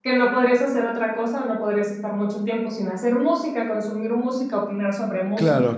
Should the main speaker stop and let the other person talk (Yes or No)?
Yes